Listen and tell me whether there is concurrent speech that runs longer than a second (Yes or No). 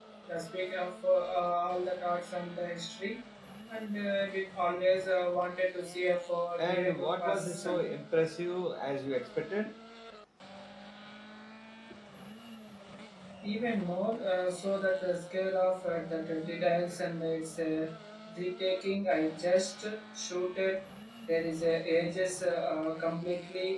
Yes